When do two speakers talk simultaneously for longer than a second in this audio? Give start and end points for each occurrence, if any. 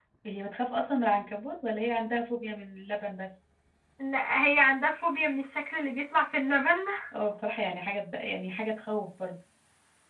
none

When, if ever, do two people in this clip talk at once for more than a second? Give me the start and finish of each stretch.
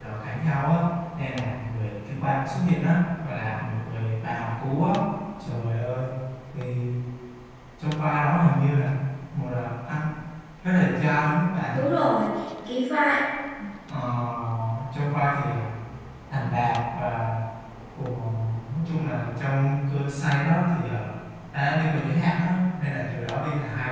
none

